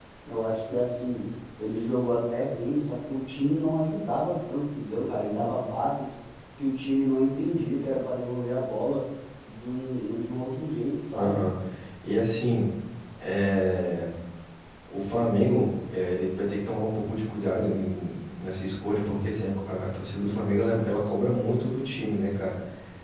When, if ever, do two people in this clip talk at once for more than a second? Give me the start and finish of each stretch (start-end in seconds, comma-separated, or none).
none